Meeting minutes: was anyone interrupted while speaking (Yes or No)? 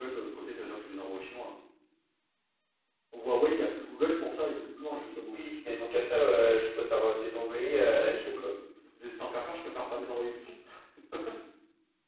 No